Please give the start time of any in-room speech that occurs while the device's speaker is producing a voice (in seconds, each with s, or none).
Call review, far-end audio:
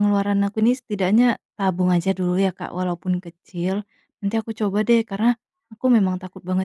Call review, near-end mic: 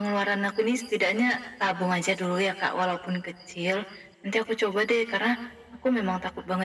none